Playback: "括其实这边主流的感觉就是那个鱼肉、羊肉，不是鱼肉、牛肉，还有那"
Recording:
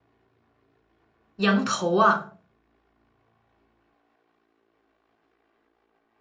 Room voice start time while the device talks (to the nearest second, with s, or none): 1 s